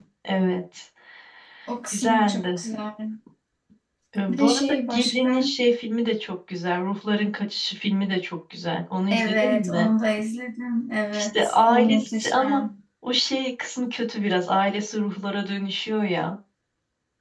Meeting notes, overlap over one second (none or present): present